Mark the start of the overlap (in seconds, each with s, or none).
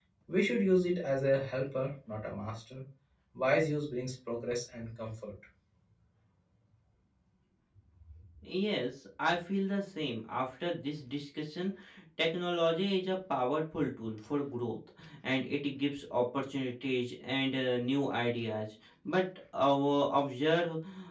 none